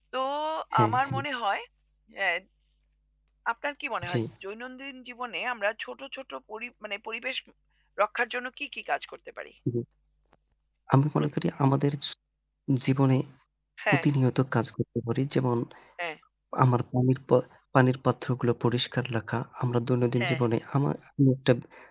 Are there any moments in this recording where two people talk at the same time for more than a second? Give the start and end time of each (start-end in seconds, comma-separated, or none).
none